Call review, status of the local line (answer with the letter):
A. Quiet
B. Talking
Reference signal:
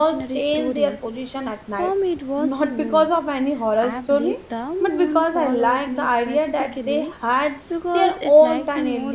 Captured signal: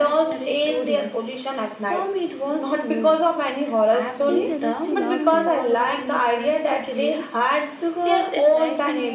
B